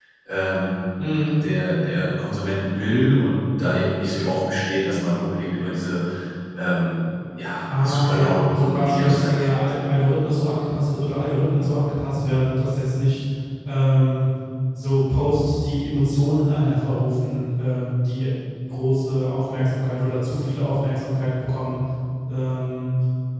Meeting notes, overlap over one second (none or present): present